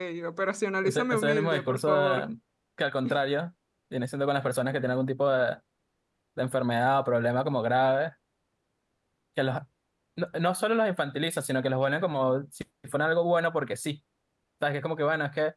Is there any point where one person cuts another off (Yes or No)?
Yes